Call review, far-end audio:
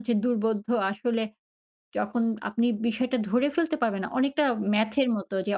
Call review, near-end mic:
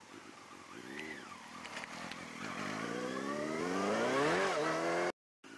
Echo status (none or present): none